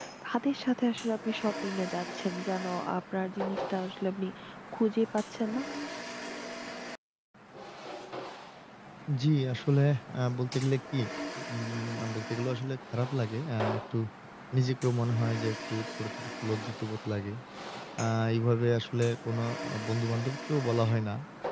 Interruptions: none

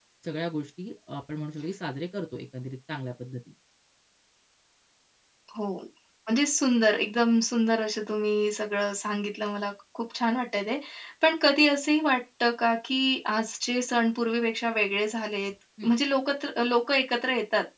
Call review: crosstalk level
none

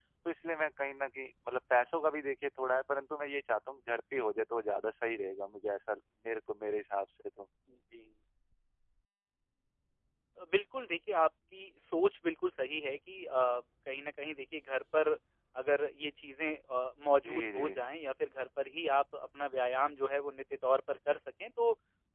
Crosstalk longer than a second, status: none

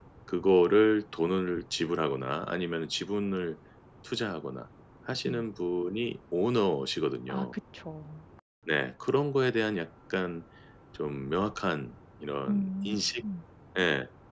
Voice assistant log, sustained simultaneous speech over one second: none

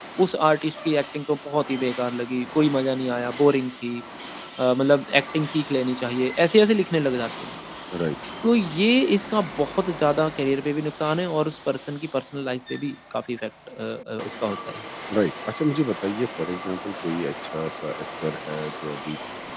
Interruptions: none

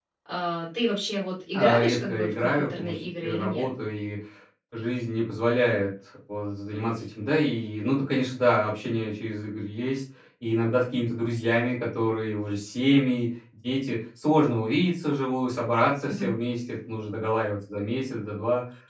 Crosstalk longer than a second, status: present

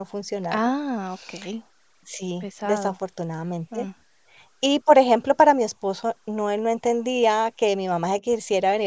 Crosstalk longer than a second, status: none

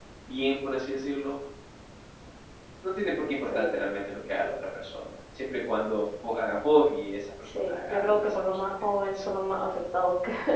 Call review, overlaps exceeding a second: present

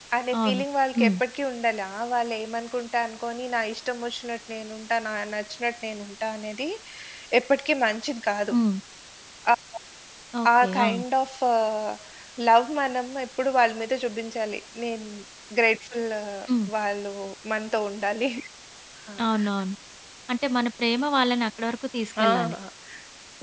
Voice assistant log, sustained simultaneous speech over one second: none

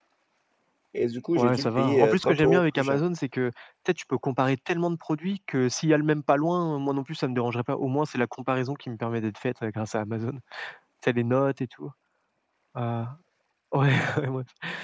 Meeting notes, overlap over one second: present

